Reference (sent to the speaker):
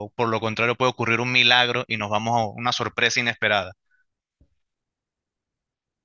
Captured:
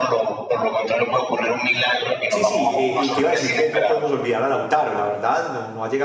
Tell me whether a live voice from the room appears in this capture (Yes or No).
Yes